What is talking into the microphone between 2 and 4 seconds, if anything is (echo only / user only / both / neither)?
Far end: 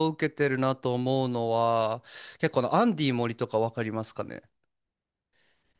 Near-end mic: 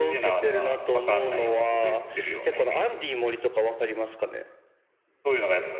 both